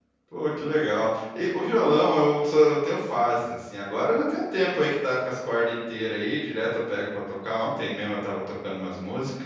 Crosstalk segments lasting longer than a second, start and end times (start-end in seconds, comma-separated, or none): none